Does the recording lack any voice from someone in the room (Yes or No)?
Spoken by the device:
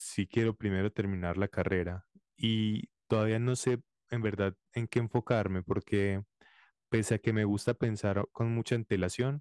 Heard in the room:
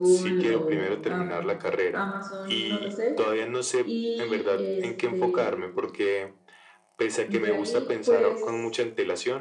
No